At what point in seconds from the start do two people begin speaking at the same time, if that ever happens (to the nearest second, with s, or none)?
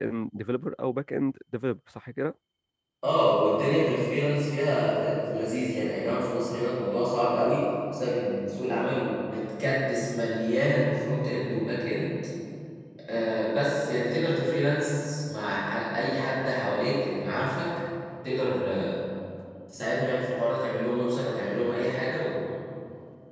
none